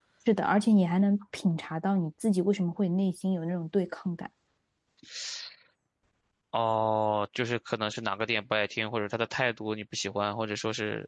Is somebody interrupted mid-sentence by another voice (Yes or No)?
No